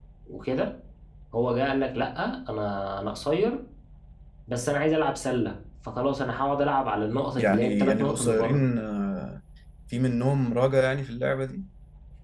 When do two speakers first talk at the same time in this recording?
7.4 s

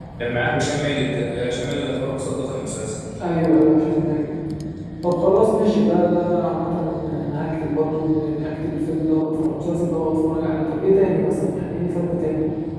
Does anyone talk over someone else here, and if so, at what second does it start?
none

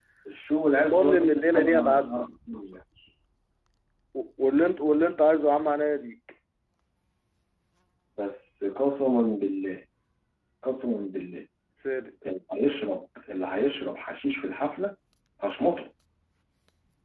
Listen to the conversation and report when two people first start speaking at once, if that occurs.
0.5 s

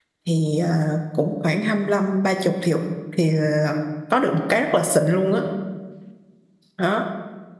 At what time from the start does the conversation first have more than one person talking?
none

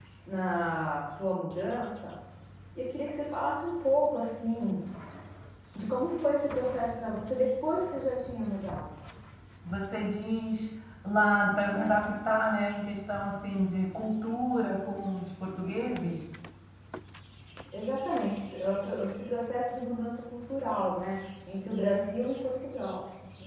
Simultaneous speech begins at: none

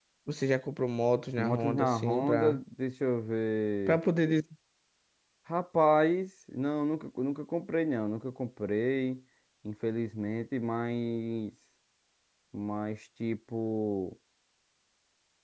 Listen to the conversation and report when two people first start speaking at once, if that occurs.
1.4 s

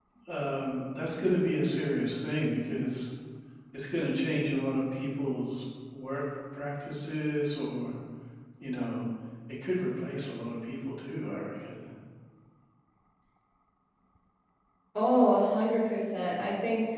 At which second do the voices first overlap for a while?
none

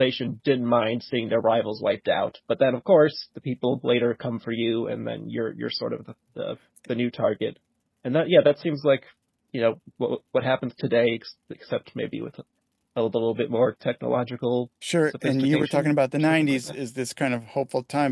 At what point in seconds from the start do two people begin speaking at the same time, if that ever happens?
15.1 s

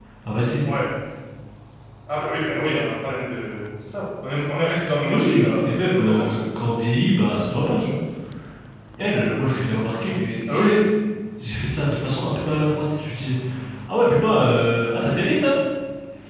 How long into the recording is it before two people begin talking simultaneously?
5.1 s

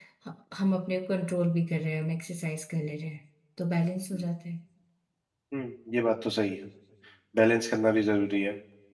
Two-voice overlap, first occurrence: none

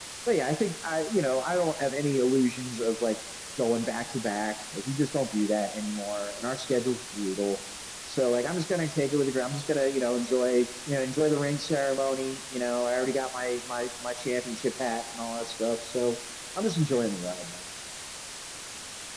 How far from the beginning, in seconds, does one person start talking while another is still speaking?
none

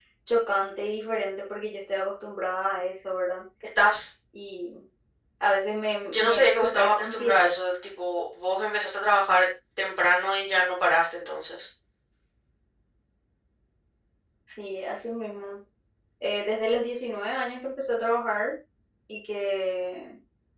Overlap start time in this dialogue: 6.0 s

